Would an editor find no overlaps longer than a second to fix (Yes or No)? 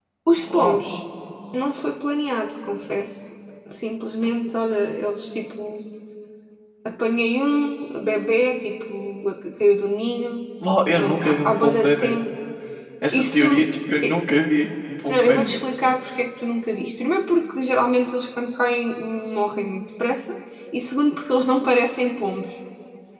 No